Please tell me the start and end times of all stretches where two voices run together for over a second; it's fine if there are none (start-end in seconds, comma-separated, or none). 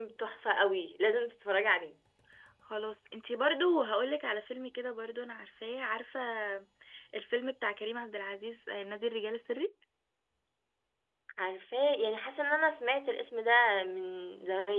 none